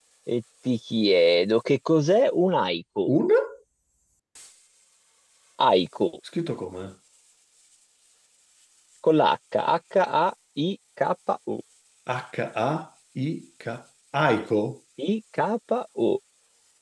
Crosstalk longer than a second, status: none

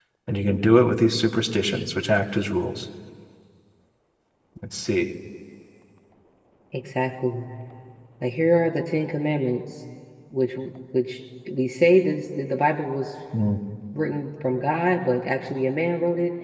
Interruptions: none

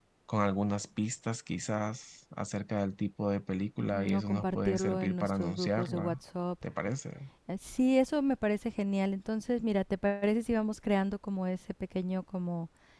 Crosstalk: present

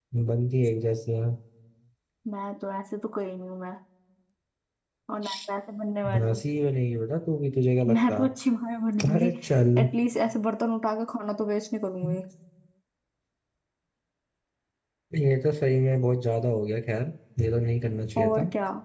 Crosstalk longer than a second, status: none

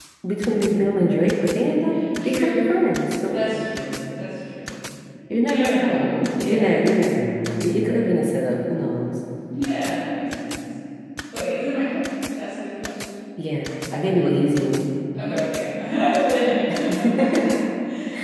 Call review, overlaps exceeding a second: present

